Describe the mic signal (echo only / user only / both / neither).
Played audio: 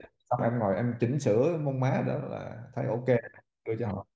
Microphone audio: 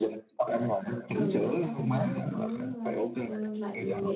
both